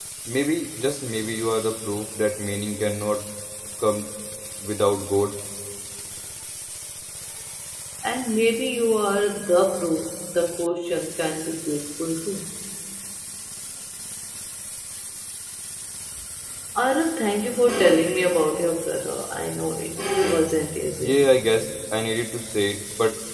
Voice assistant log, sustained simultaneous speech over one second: none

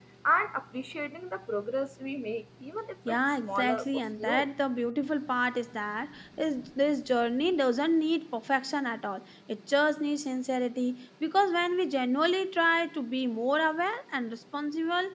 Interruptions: present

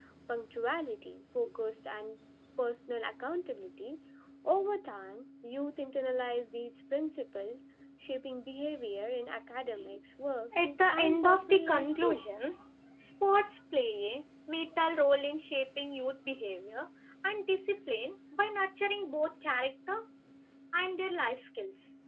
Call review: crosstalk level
present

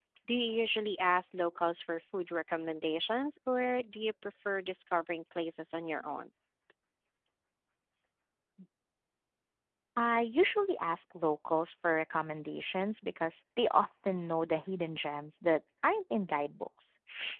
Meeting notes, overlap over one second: none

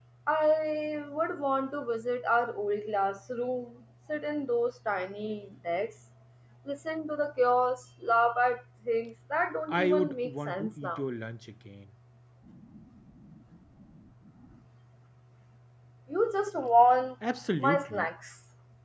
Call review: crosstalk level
present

